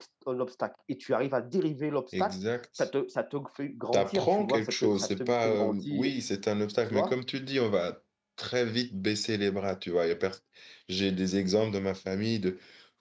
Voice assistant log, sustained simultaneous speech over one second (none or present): present